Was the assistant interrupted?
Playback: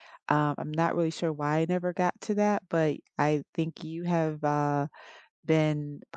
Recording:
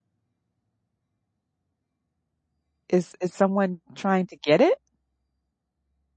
Yes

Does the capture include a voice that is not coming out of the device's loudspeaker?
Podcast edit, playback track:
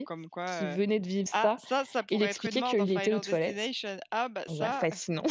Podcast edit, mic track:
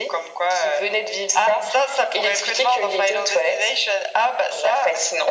No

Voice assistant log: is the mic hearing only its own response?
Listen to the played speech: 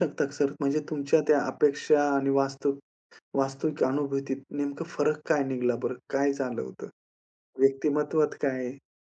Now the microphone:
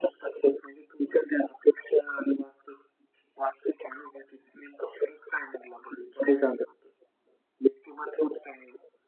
Yes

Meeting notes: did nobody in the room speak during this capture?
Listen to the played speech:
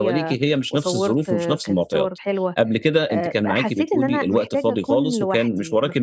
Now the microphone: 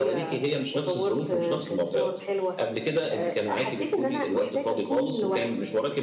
Yes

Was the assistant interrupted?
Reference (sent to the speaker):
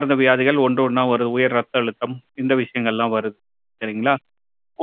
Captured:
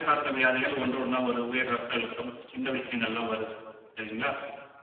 No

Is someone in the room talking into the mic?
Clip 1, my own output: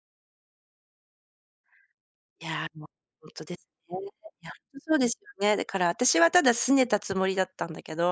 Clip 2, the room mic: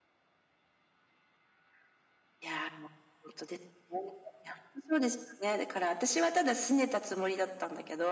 No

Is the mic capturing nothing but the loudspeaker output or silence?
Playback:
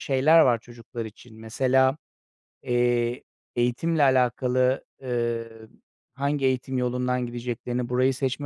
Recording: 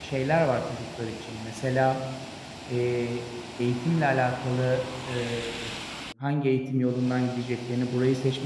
Yes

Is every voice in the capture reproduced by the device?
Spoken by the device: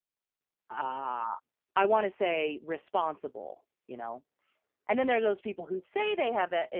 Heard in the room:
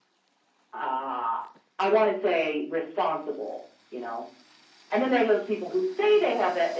Yes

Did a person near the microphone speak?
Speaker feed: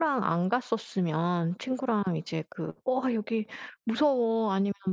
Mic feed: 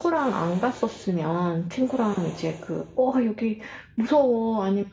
No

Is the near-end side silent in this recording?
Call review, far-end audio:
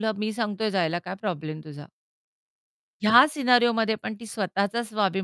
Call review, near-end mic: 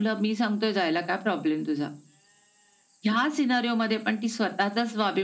Yes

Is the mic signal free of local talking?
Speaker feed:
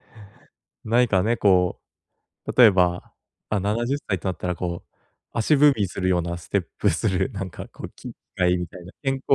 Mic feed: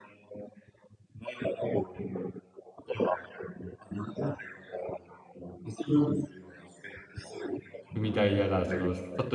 No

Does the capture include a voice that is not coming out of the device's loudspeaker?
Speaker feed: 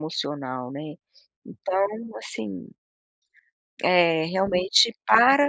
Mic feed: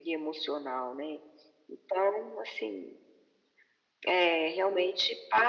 No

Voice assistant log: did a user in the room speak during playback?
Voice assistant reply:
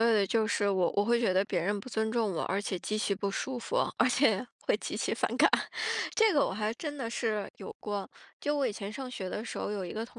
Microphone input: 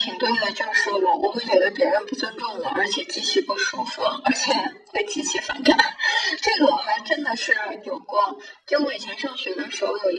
No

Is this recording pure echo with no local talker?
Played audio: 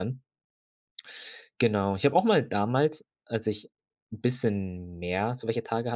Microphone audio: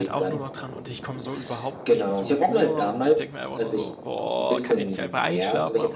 No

